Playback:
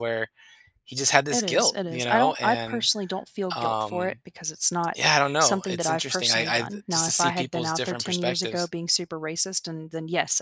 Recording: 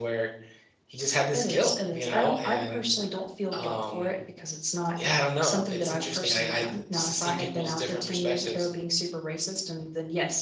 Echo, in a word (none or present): present